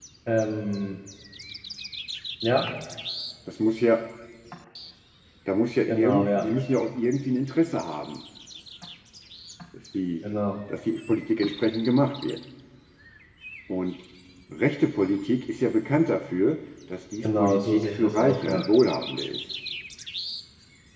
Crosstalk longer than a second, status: present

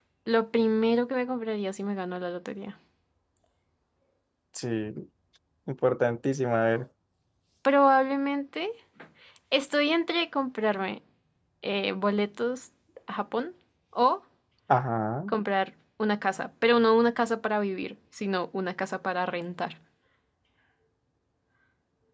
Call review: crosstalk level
none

